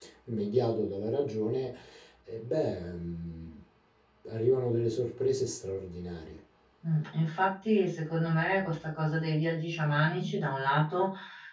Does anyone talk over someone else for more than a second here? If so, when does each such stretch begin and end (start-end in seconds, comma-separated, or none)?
none